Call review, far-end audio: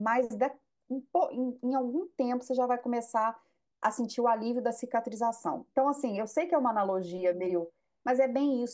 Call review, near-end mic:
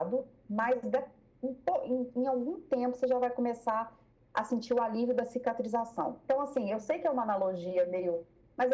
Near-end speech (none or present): none